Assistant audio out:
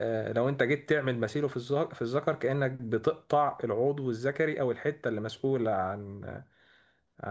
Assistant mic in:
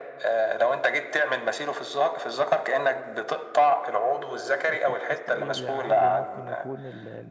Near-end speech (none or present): present